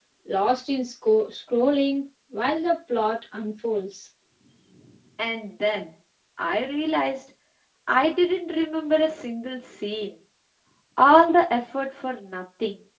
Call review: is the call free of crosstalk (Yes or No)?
Yes